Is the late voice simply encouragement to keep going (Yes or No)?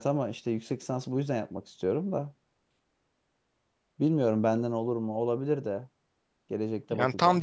No